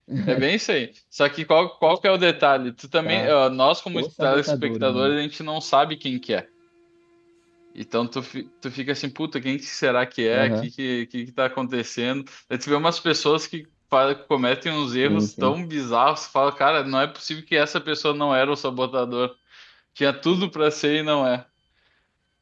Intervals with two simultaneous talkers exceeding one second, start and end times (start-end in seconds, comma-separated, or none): 3.9-5.1